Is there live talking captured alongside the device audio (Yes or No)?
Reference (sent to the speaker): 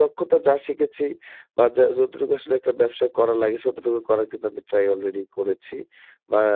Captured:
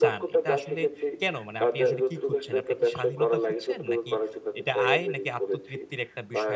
Yes